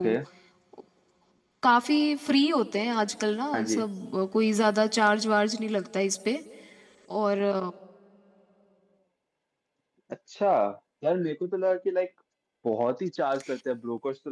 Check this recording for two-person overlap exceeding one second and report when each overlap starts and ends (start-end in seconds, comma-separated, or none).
none